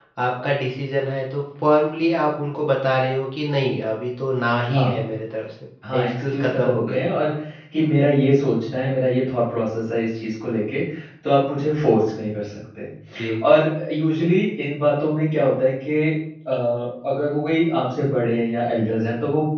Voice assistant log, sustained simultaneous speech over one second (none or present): present